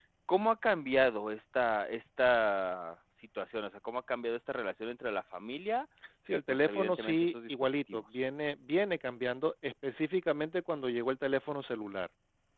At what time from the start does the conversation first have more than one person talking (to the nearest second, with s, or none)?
6 s